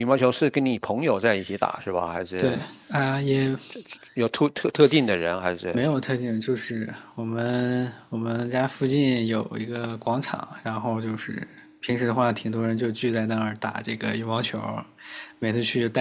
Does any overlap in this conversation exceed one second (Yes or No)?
No